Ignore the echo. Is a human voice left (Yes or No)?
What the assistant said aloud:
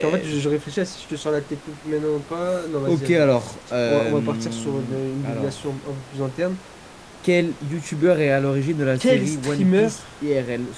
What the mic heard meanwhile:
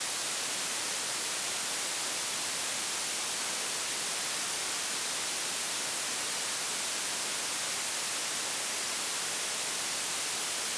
No